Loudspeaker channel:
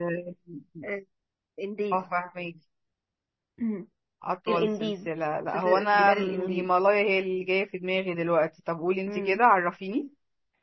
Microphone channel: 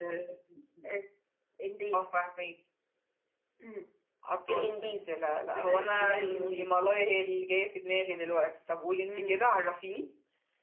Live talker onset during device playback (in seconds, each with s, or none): none